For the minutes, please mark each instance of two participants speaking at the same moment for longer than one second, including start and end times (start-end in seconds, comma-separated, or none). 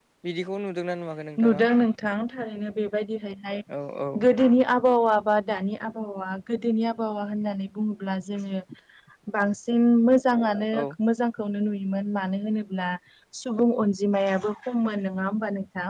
none